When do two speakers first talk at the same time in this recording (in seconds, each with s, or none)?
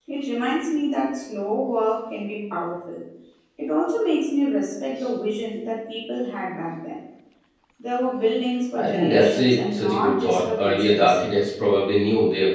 8.7 s